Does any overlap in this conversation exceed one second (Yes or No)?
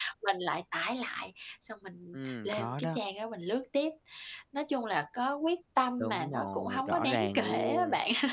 Yes